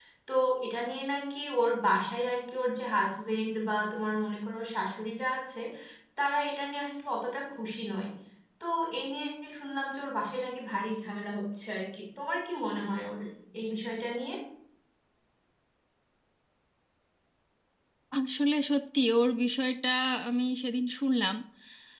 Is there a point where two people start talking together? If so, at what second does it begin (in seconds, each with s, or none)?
none